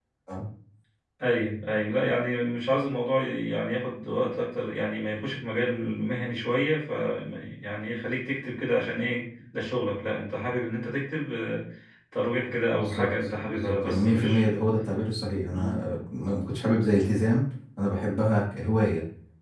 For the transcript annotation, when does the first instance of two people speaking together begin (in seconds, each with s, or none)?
12.8 s